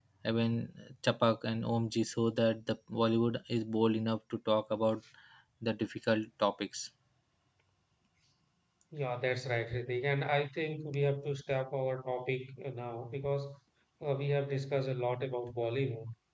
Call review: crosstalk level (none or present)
none